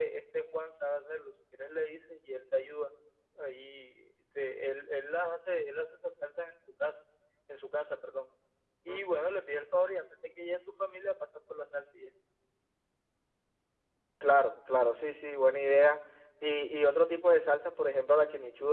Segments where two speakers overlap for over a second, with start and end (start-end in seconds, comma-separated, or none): none